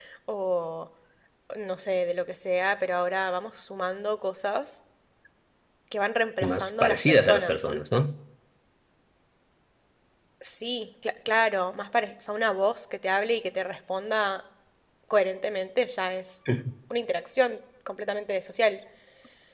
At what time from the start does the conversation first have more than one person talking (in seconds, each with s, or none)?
6.4 s